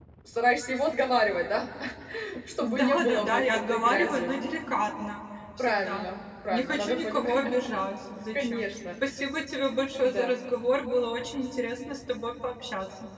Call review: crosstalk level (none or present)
present